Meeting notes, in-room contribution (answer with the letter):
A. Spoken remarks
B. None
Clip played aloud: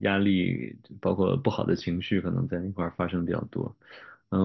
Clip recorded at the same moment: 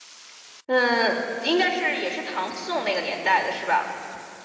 A